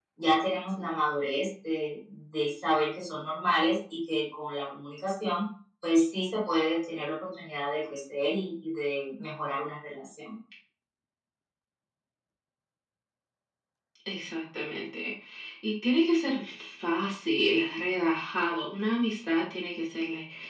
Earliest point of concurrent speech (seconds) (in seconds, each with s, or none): none